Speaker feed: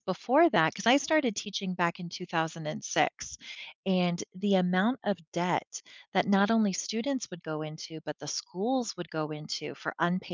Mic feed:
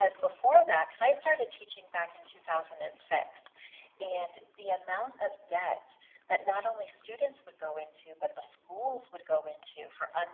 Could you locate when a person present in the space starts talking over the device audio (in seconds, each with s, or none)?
none